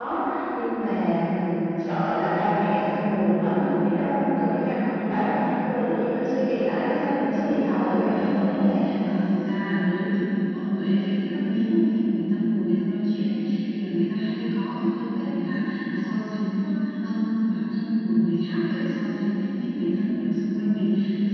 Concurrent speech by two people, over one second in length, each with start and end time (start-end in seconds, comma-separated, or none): 6.8-8.8